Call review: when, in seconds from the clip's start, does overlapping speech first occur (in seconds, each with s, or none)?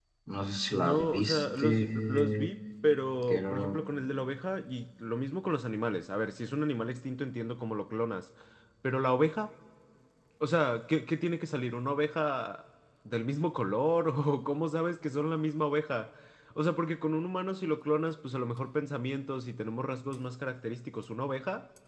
0.7 s